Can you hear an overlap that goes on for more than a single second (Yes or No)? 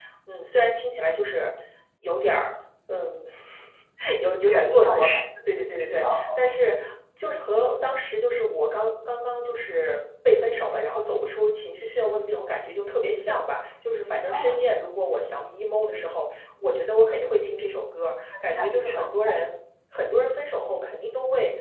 Yes